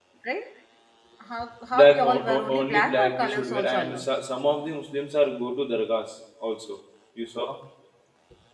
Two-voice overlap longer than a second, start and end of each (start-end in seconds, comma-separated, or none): 1.7-4.0